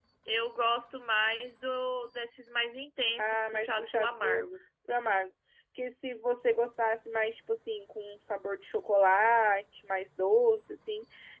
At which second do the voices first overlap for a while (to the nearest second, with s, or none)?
3 s